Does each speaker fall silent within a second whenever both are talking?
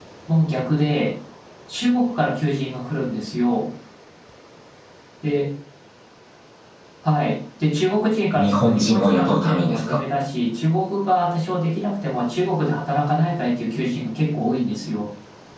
No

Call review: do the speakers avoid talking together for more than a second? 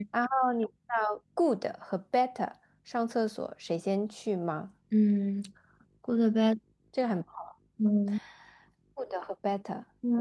Yes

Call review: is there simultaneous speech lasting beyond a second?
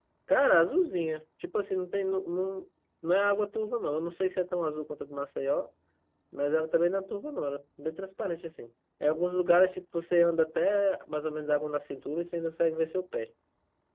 No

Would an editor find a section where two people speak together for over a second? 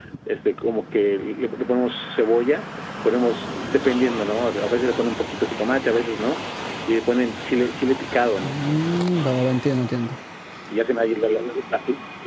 No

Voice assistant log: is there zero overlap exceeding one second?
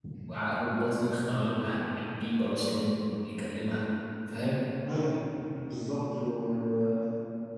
Yes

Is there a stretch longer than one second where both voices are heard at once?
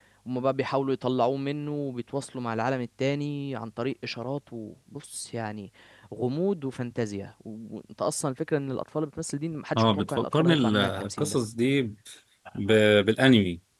Yes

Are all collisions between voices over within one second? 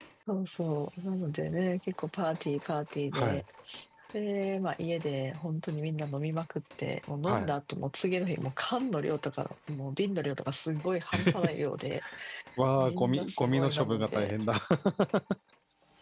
No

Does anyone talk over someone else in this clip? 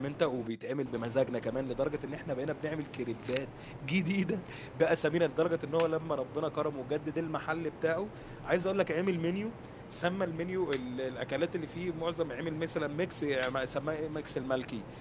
No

